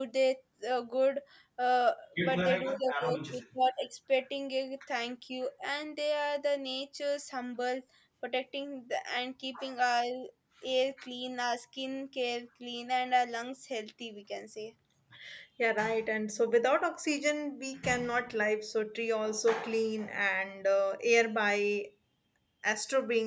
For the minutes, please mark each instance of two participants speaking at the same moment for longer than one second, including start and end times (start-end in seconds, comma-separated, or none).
2.2-3.4